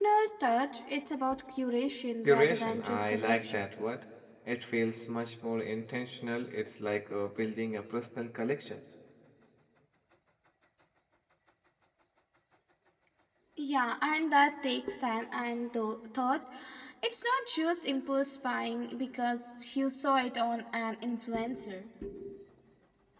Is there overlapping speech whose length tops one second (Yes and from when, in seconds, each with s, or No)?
Yes, from 2.2 s